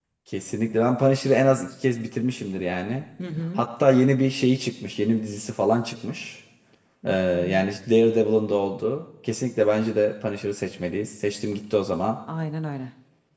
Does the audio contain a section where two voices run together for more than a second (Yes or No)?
No